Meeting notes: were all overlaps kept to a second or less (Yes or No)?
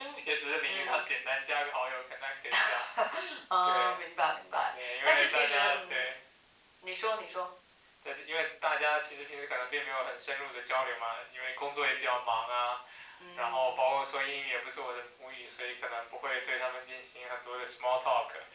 No